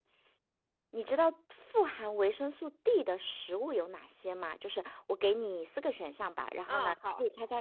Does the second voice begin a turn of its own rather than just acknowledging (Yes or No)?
No